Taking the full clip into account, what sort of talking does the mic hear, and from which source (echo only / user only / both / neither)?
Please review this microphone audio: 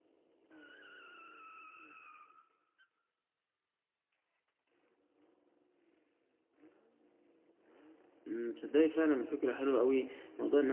user only